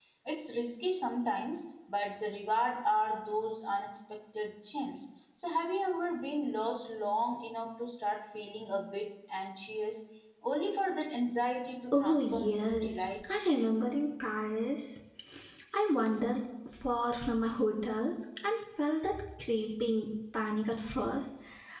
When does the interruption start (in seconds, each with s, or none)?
11.9 s